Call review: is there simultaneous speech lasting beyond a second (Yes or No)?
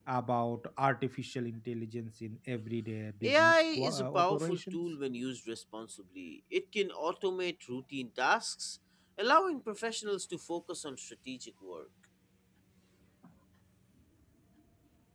Yes